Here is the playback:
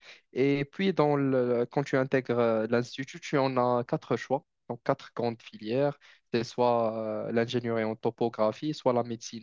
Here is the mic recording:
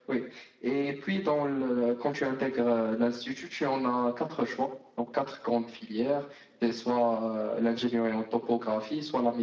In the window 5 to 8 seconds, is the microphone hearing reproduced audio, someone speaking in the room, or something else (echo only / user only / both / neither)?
echo only